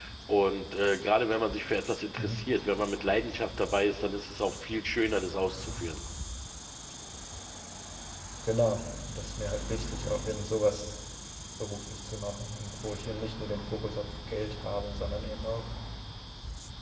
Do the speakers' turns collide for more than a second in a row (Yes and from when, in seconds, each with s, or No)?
No